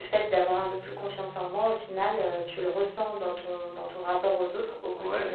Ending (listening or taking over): taking over